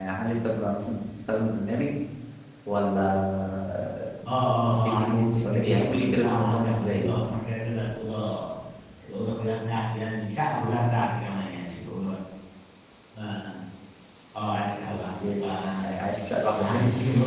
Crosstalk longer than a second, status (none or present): present